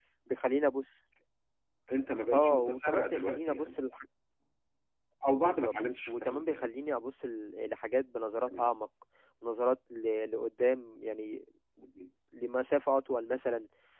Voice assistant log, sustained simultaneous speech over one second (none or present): present